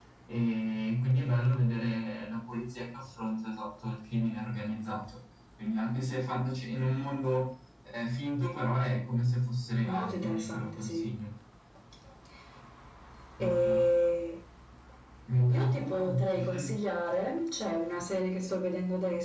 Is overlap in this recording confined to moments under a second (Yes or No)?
No